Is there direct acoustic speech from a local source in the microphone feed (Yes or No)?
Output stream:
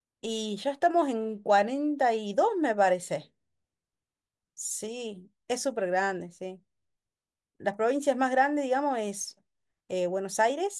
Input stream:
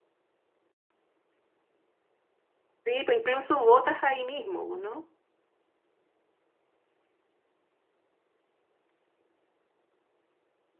Yes